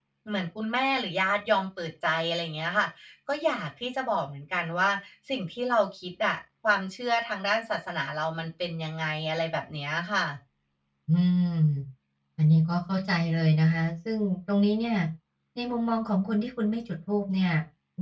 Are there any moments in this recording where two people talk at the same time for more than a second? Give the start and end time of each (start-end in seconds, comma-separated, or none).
none